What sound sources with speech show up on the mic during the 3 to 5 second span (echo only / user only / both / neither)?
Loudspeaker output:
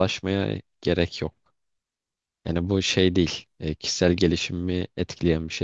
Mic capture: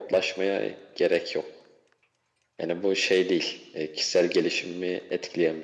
echo only